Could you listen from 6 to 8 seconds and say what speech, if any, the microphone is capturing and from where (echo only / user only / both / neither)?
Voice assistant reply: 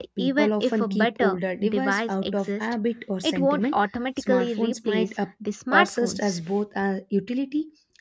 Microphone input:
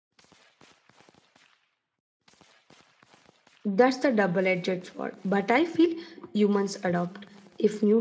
user only